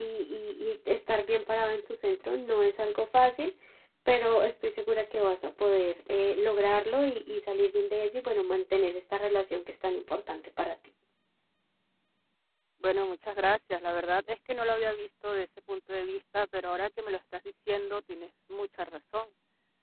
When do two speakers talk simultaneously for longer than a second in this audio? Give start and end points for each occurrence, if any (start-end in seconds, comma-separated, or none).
none